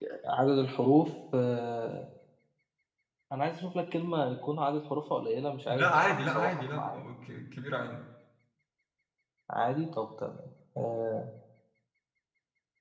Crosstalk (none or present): present